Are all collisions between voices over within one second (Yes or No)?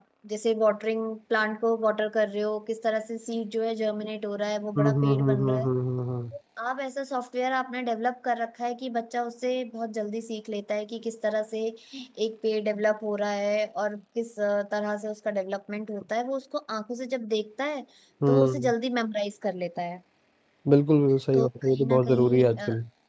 No